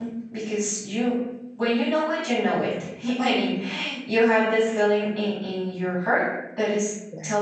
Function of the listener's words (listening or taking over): listening